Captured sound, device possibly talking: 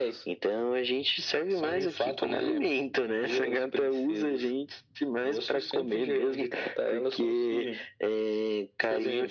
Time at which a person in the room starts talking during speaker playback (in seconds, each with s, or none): none